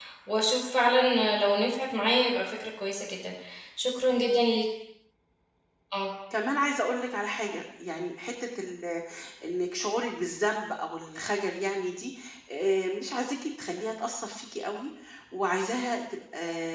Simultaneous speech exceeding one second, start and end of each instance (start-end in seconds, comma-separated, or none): none